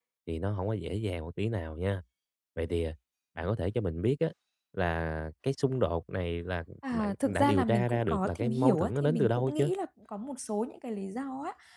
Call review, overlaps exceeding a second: present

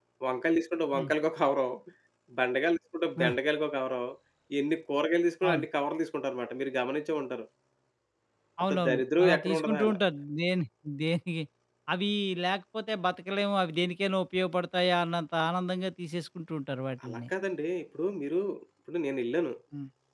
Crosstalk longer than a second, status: present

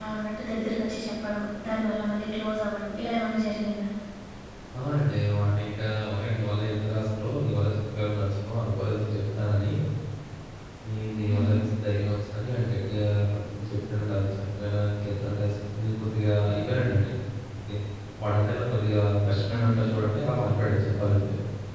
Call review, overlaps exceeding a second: none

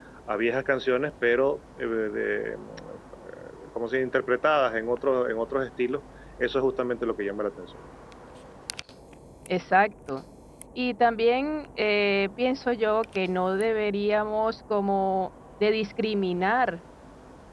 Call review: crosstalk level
none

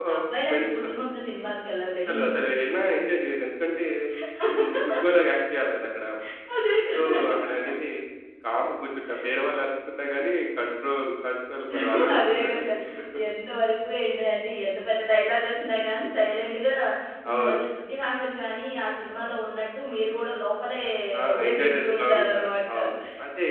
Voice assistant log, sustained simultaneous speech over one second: present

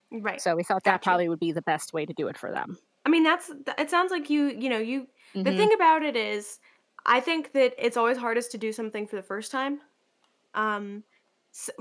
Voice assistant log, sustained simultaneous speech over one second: none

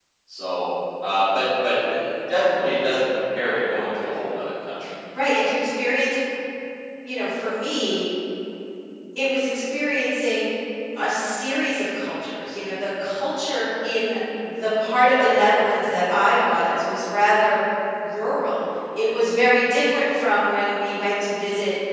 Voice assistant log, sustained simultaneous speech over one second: none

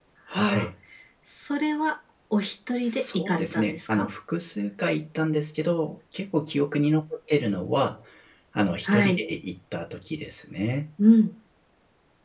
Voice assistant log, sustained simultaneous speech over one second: present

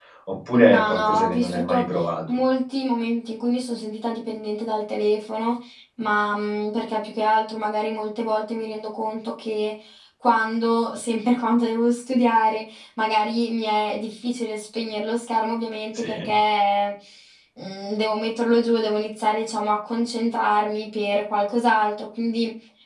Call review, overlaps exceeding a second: present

